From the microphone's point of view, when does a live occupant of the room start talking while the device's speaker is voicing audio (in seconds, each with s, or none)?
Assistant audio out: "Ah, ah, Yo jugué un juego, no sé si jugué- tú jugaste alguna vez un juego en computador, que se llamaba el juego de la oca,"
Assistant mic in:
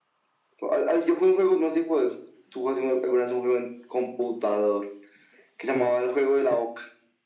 5.7 s